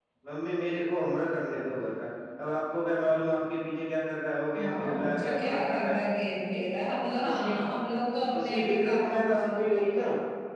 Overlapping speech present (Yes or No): Yes